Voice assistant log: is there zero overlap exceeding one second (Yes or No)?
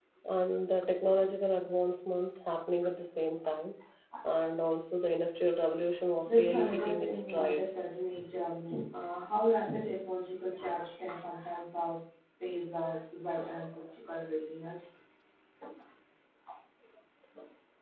No